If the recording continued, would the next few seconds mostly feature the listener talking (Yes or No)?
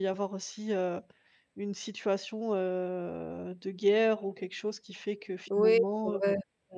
Yes